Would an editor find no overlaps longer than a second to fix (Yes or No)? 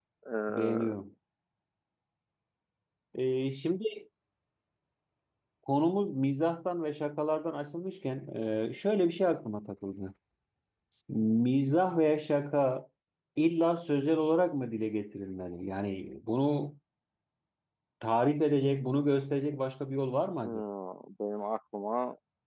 Yes